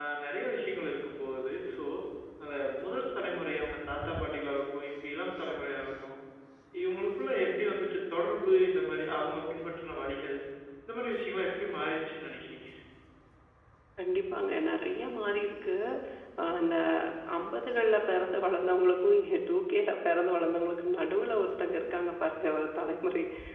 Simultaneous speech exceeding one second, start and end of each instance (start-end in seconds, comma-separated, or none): none